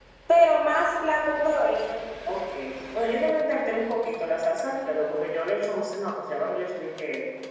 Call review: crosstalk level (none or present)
none